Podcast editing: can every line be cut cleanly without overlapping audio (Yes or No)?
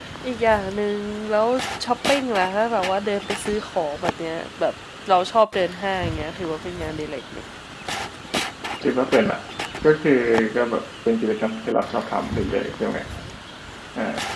Yes